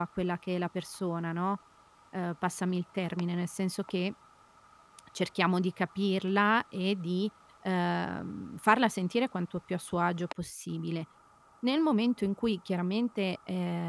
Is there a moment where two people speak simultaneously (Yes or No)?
No